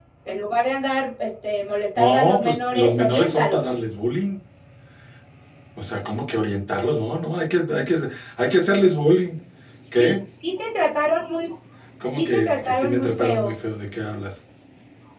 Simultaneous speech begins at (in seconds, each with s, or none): 2.0 s